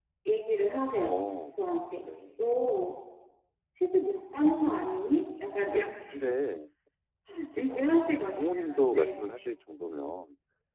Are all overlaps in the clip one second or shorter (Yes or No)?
No